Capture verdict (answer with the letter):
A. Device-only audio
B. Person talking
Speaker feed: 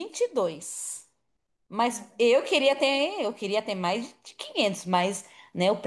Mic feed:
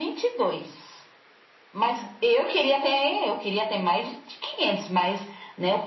A